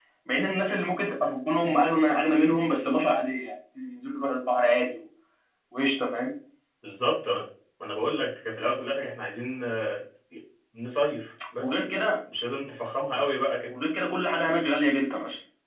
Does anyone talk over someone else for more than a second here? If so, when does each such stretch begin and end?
none

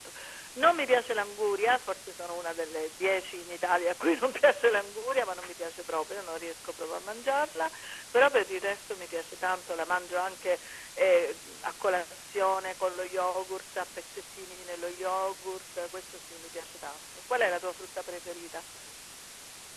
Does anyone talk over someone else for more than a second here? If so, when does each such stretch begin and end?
none

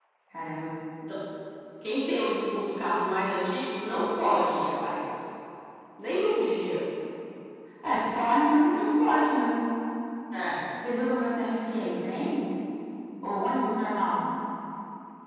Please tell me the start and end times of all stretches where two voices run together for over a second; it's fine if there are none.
none

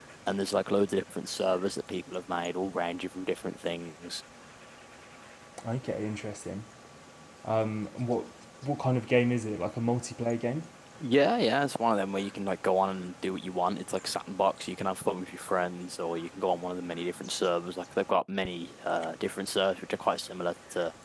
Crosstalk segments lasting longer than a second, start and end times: none

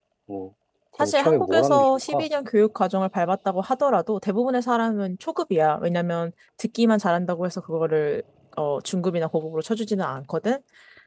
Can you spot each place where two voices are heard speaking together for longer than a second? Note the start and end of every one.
1.0-2.2

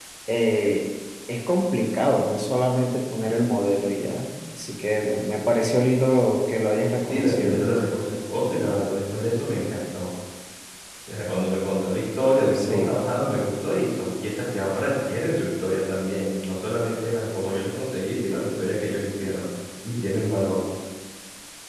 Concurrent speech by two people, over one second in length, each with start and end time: none

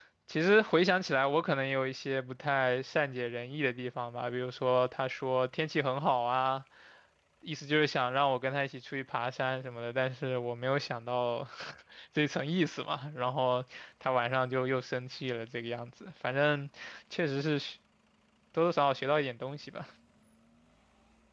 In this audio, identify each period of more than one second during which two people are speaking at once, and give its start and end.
none

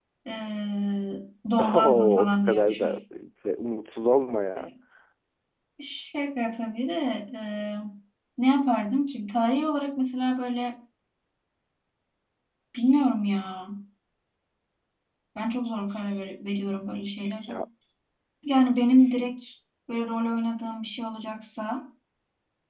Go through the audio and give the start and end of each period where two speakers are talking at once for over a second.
1.6-2.9

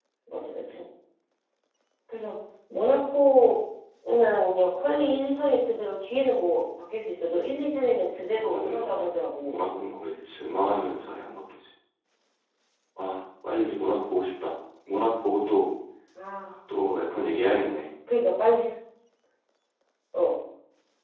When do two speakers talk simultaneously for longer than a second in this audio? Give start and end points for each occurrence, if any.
8.3-9.6

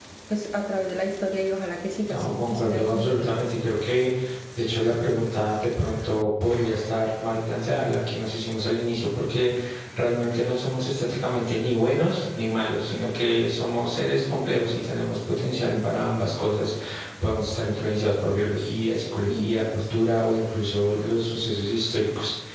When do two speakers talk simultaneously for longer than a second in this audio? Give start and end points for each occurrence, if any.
2.0-3.4

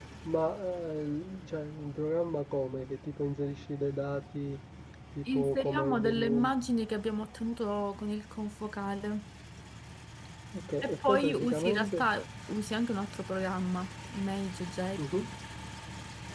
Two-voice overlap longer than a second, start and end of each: 5.3-6.5, 10.8-12.1

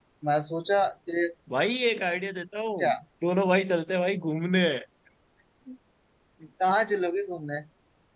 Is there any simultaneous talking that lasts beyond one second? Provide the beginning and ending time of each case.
none

